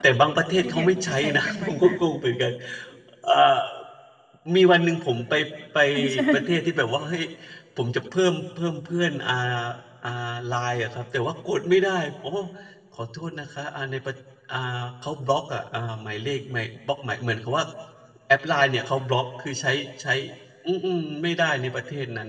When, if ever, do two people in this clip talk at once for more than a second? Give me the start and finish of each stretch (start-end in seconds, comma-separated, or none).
0.6-2.0